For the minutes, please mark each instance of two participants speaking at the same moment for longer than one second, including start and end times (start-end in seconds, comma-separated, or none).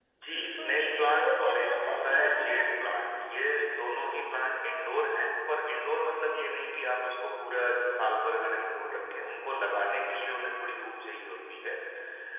0.6-2.7